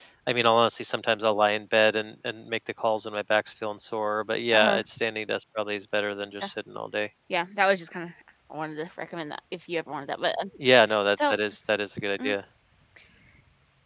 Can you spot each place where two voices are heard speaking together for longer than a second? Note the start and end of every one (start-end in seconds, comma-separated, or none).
none